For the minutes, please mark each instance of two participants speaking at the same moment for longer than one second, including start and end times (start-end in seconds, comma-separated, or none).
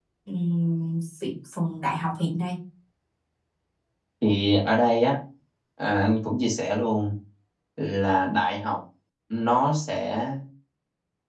none